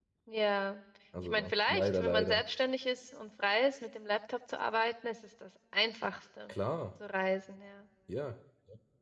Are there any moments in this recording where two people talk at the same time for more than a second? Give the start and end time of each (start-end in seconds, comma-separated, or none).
1.2-2.4